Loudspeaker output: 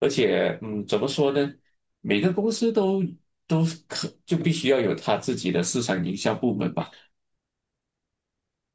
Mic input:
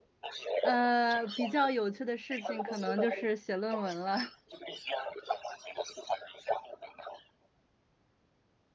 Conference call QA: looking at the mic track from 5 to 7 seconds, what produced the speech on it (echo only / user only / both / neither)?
echo only